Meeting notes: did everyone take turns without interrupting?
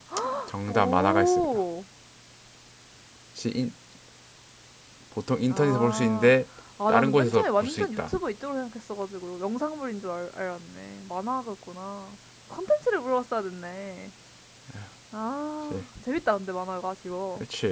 No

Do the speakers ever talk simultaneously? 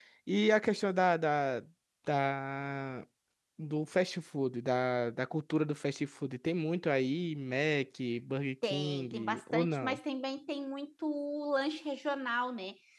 Yes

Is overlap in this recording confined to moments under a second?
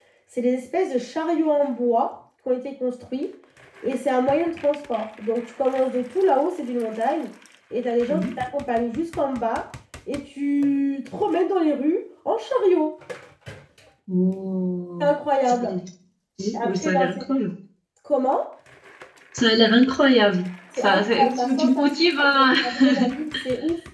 No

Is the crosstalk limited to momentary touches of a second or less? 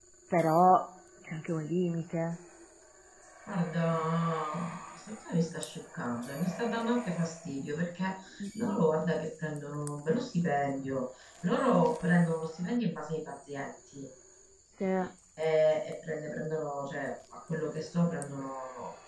Yes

